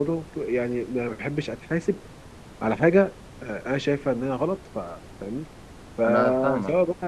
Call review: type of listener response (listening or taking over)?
listening